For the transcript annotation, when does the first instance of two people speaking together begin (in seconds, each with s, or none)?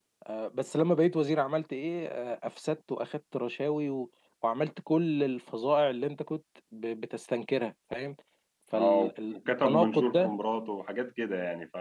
8.7 s